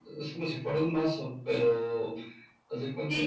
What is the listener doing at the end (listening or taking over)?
taking over